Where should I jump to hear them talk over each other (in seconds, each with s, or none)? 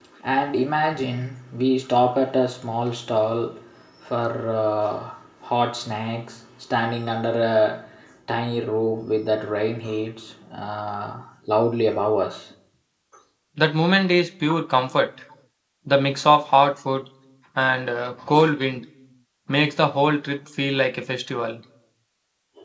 none